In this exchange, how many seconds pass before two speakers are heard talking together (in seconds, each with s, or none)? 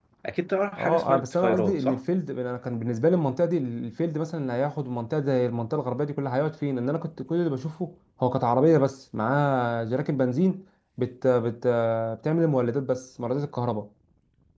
0.8 s